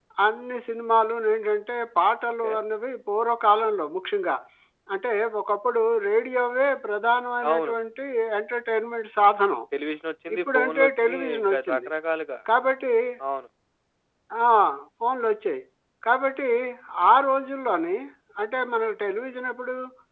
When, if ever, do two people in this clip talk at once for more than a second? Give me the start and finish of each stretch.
10.4-11.9

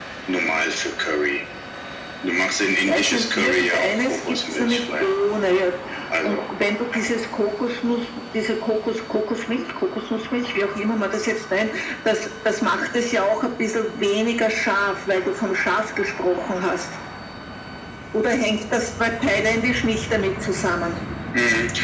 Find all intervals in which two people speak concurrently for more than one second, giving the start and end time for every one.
2.7-5.2

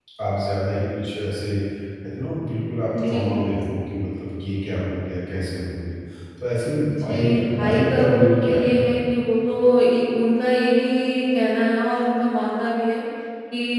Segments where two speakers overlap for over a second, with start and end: 6.9-8.8

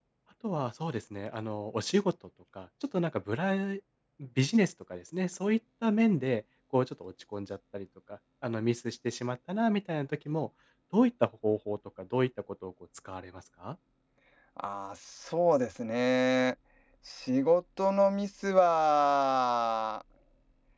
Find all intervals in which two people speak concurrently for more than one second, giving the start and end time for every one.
none

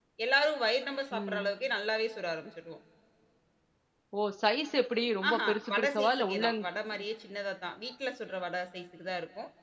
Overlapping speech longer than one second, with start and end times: 5.3-6.5

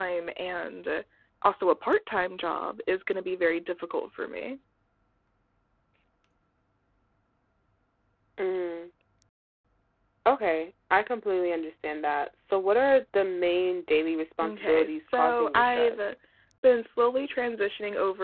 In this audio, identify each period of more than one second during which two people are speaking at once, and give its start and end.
14.4-16.0

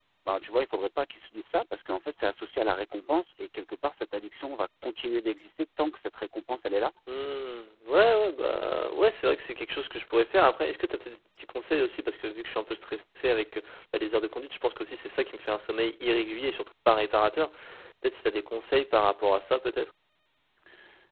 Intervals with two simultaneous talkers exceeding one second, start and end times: none

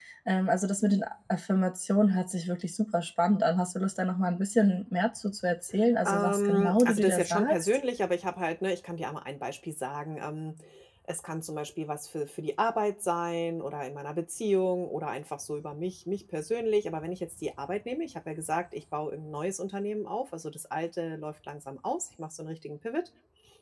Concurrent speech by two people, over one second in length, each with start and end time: 6.0-7.8

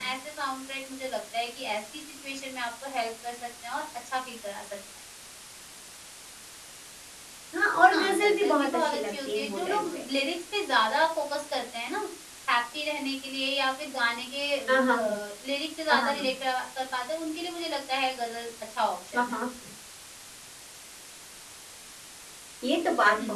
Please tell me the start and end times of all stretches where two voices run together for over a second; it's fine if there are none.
7.9-10.0

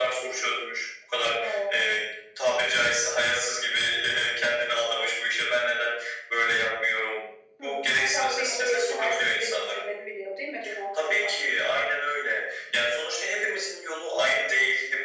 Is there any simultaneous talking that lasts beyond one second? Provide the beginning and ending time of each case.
7.6-9.8

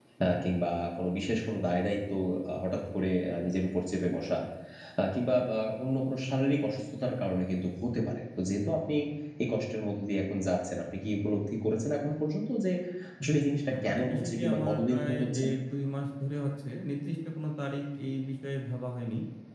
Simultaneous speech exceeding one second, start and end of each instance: 13.7-15.4

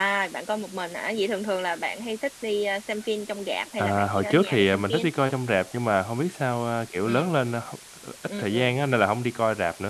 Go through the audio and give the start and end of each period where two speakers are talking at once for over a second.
3.8-5.0

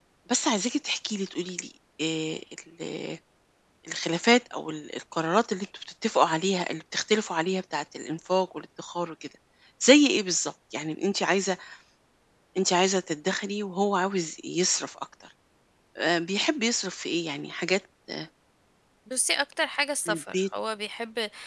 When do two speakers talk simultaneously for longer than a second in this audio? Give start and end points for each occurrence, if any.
none

